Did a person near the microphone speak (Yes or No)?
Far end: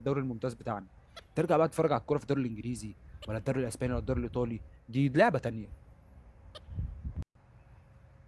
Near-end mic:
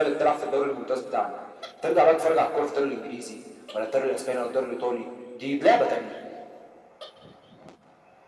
No